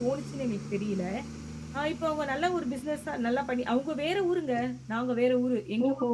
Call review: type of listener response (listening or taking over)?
taking over